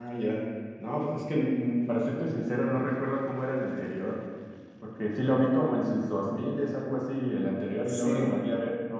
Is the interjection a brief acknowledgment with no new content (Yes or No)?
Yes